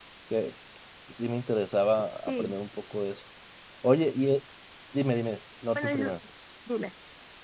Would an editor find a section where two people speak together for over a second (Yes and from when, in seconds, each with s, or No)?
No